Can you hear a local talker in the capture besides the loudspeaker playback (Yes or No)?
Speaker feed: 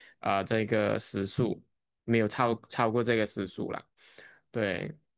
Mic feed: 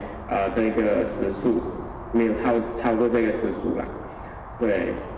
No